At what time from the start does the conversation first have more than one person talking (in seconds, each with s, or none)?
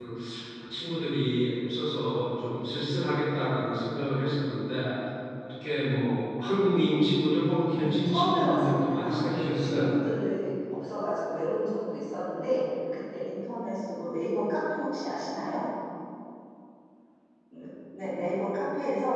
7.7 s